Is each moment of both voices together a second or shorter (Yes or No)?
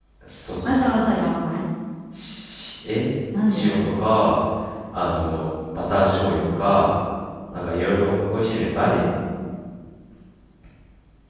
Yes